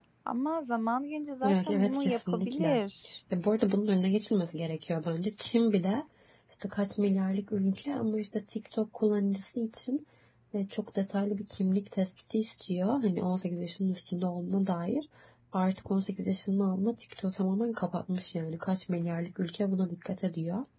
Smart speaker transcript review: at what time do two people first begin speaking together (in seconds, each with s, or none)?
1.4 s